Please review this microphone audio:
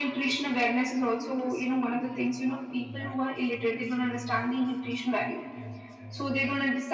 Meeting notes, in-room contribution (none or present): present